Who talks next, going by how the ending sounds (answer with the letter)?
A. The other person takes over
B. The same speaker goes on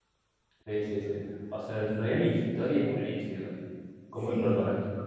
B